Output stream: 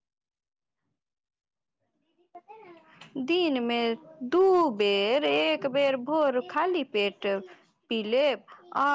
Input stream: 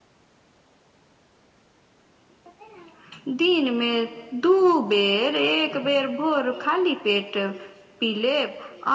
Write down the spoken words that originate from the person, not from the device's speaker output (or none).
none